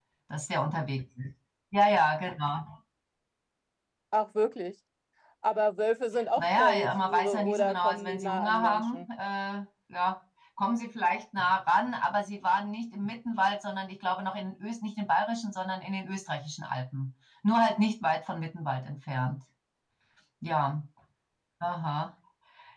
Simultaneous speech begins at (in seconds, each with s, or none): 6.4 s